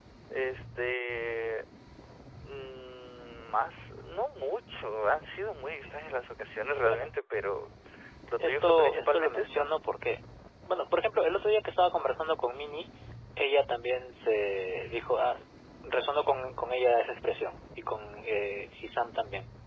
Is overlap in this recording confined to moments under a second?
No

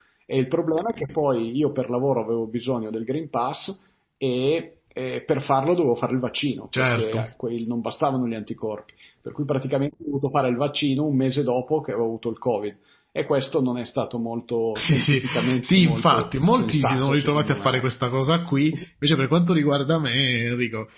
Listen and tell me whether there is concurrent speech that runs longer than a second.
Yes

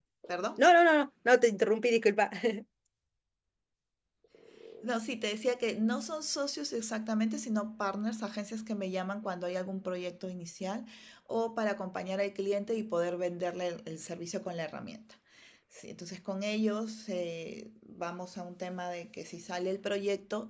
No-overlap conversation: Yes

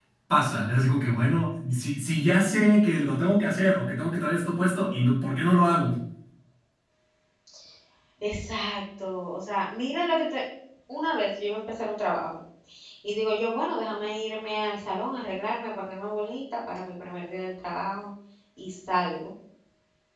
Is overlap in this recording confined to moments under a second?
Yes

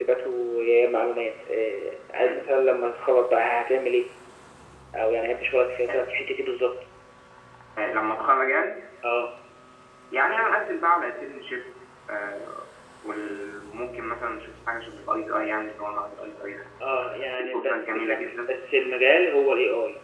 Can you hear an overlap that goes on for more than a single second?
Yes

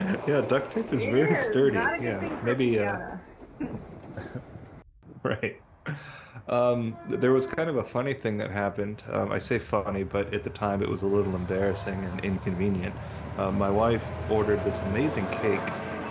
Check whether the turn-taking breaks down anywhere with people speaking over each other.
Yes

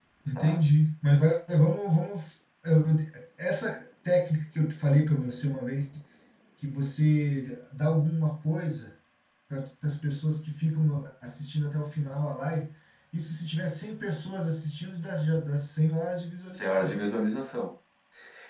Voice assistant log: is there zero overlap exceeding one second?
Yes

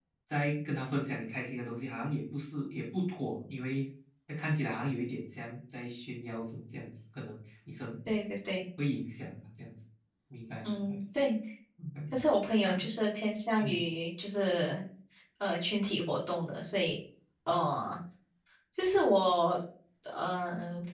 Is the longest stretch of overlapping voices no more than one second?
Yes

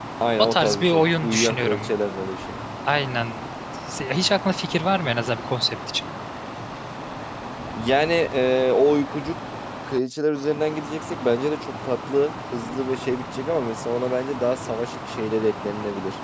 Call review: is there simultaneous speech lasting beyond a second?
Yes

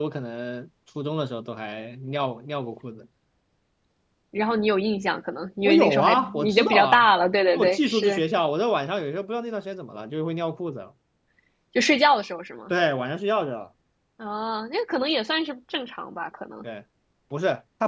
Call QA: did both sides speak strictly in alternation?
No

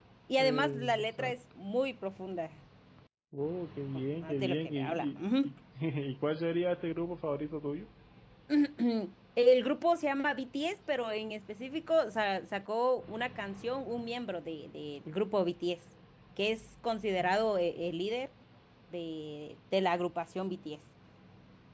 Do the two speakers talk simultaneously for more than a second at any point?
Yes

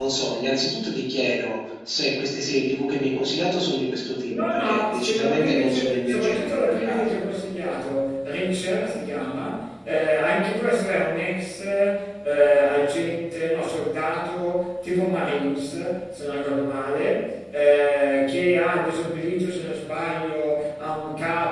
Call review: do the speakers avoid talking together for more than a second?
No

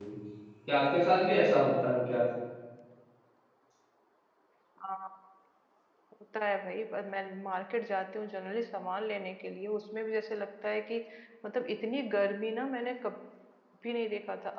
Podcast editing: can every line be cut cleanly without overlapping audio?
Yes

